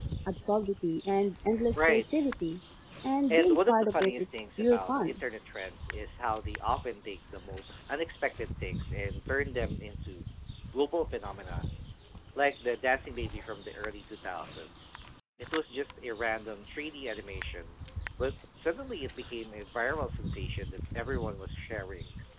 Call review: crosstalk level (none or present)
present